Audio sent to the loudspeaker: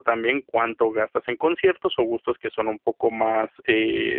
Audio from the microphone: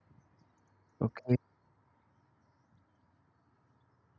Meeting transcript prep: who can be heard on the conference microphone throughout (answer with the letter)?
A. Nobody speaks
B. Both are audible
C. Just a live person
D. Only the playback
C